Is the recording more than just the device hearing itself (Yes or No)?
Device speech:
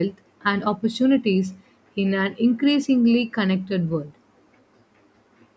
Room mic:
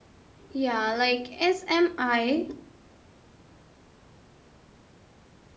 Yes